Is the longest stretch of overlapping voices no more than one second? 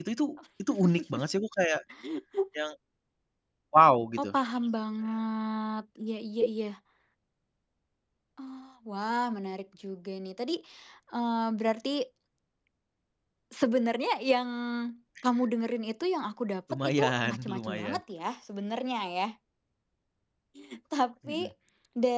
No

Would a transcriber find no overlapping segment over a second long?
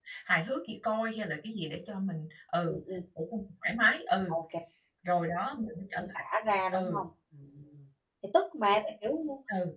Yes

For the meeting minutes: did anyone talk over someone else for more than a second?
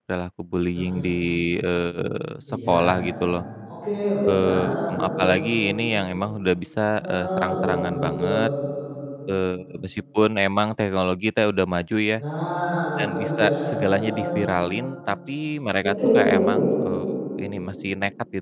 Yes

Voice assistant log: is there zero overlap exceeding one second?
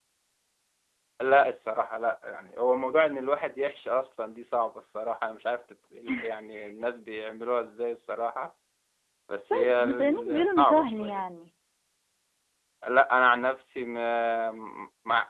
No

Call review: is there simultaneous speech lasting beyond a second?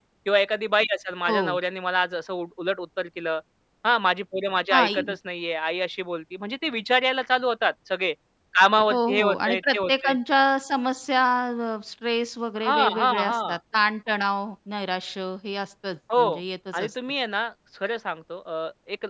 Yes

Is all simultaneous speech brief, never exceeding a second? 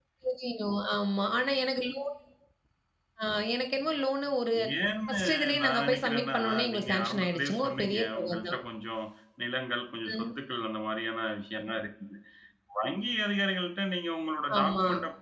No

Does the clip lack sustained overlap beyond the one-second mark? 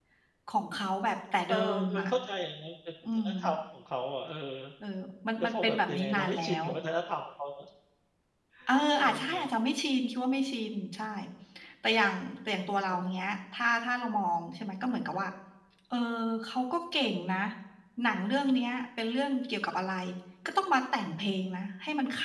No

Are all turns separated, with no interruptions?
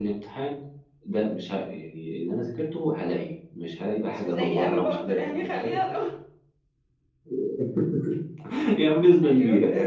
No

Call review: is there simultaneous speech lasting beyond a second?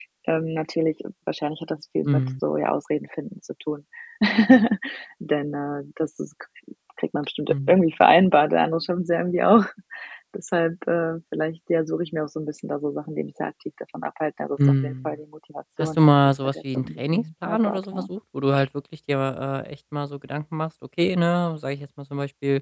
Yes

